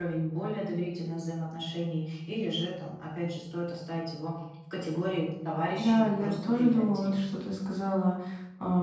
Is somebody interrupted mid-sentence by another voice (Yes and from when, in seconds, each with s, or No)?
Yes, from 5.8 s